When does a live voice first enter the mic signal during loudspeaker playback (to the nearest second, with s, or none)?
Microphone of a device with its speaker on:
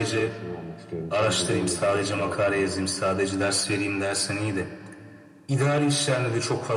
none